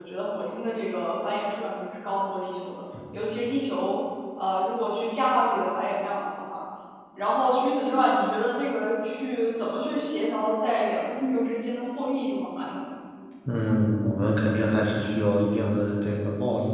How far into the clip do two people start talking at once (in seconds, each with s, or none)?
none